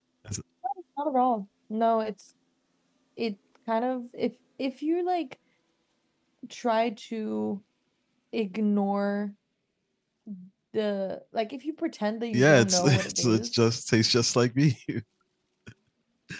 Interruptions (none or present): present